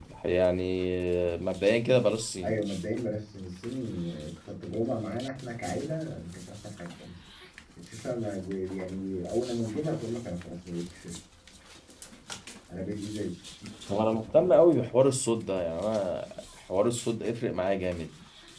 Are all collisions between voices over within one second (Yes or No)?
Yes